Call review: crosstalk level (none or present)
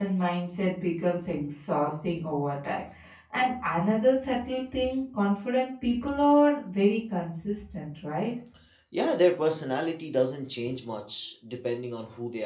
none